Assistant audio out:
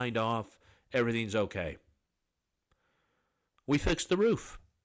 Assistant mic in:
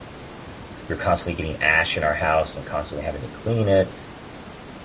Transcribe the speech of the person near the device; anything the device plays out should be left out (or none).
We were constantly getting ash in our house and constantly having to clean it.